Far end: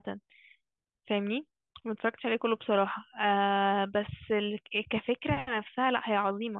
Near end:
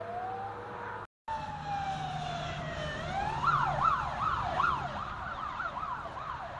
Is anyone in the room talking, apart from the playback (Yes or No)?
No